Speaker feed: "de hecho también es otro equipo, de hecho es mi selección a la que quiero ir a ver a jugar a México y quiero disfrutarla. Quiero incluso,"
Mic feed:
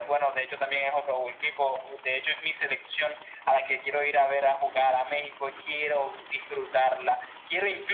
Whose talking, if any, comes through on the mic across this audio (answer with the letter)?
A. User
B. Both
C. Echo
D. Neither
C